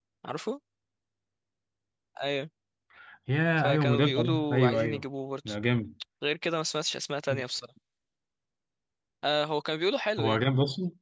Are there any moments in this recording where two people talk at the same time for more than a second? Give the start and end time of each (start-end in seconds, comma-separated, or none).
3.6-5.0